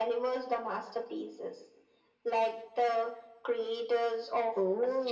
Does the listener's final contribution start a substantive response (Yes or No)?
Yes